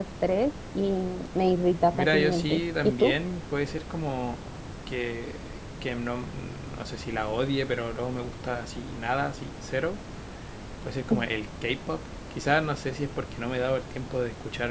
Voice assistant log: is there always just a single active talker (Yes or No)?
No